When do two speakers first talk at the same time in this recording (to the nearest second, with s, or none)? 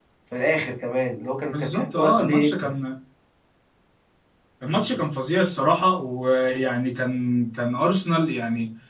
2 s